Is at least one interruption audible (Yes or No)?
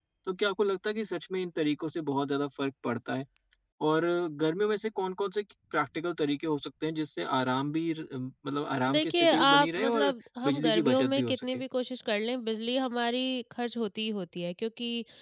Yes